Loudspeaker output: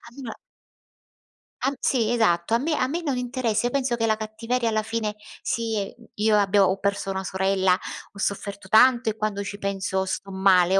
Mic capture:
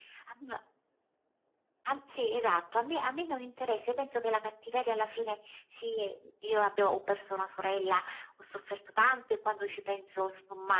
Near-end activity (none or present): none